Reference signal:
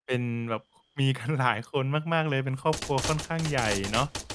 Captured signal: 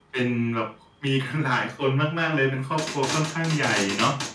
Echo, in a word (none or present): present